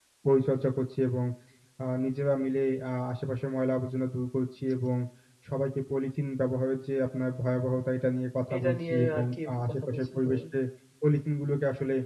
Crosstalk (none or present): present